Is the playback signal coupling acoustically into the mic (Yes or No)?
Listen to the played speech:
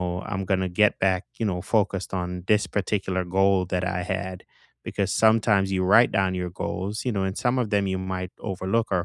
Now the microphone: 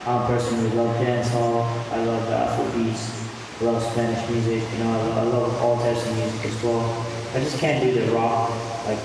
No